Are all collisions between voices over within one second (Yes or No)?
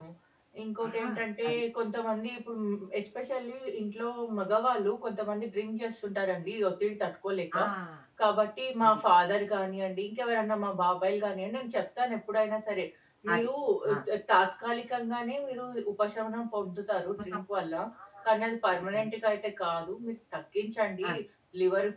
Yes